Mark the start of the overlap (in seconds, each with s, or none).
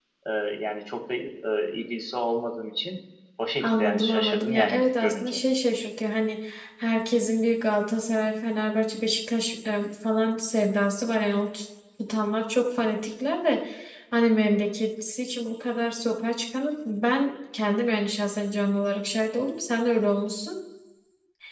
3.6 s